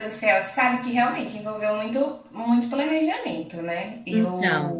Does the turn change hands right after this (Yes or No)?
No